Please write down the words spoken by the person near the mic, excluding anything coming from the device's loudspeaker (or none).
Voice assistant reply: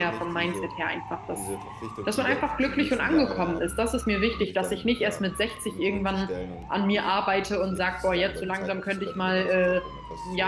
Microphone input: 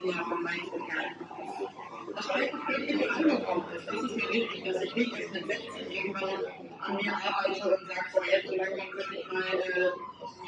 weil die Leute, die beneiden einen schon sehr, sehr oft, wenn man jetzt beispielsweise viel auf Reisen geht oder